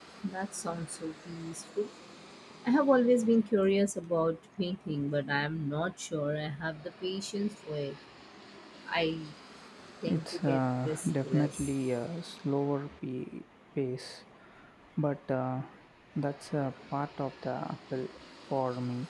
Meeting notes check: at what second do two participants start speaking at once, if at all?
10.1 s

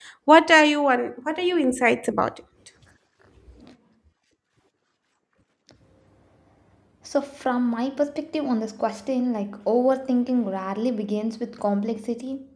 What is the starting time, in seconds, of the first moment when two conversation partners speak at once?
none

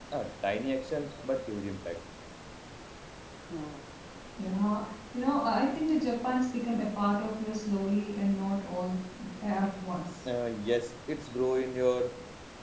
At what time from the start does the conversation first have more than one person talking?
none

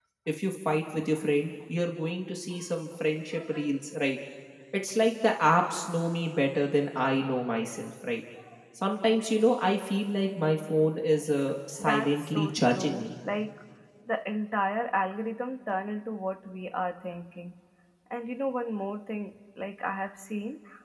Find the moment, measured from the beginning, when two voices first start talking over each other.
11.8 s

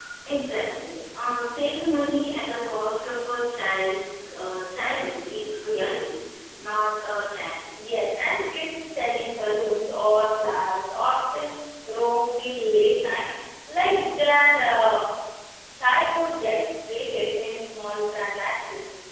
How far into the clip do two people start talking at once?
none

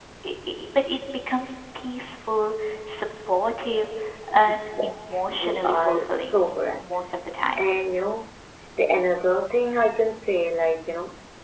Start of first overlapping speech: 4.5 s

